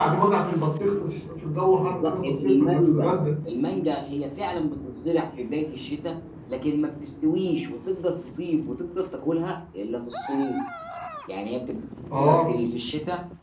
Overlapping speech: Yes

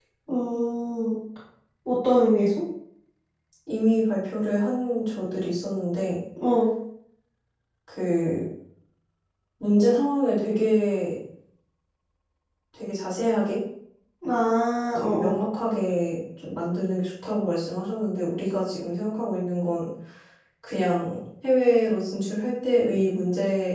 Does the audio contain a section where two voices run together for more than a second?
No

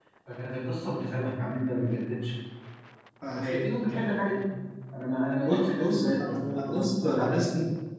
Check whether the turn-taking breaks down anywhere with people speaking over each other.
Yes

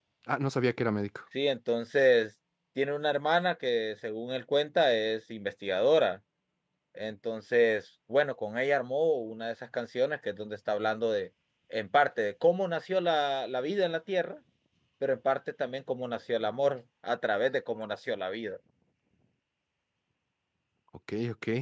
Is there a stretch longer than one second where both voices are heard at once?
No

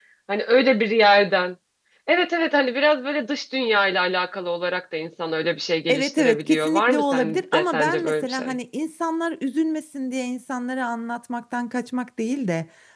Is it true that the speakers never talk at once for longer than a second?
No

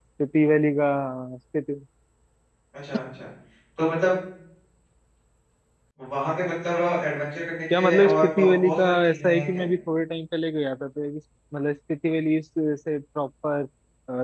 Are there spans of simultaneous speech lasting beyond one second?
Yes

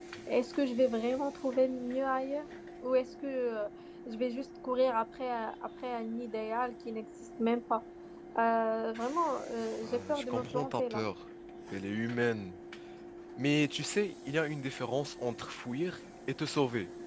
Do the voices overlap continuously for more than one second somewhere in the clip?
Yes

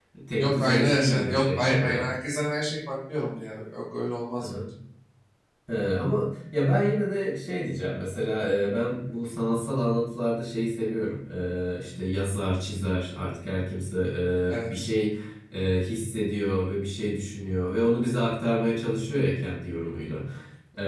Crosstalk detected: Yes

